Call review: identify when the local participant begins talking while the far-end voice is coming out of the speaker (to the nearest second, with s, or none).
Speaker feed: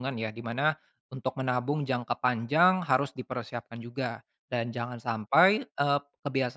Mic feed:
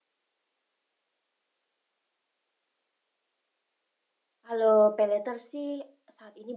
4 s